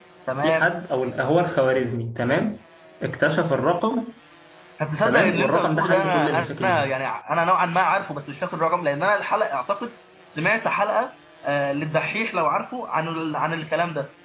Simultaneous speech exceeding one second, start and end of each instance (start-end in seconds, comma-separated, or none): 5.0-6.9